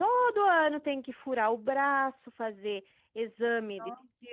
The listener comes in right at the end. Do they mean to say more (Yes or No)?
No